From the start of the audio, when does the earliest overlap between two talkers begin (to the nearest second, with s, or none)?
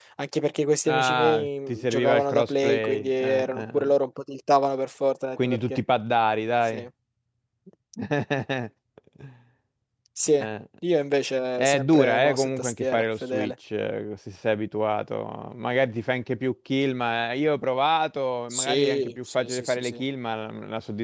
1 s